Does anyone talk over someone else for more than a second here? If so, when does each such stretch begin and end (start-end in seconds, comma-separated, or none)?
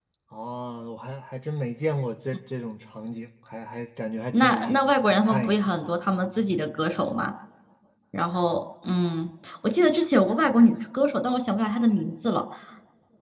4.3-5.7